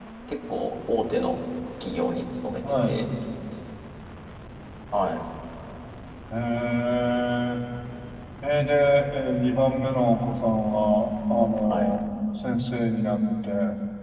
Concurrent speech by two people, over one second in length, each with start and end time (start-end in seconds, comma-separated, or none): none